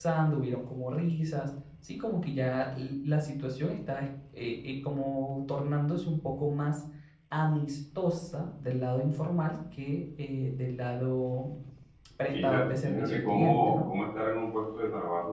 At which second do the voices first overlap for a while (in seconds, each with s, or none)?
12.3 s